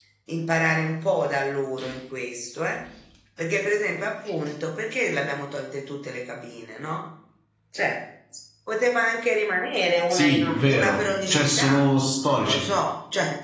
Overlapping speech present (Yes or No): Yes